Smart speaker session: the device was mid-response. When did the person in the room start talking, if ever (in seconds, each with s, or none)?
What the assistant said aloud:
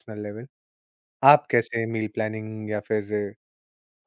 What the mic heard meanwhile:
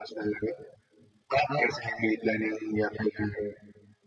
none